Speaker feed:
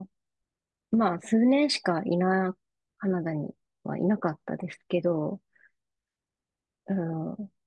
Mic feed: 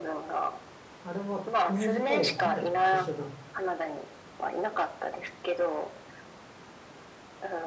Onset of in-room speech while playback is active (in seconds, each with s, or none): 1.0 s